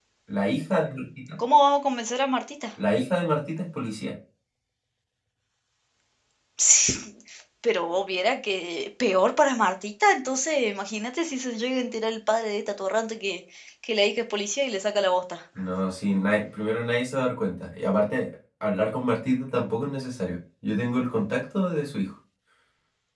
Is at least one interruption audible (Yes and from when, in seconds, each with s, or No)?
No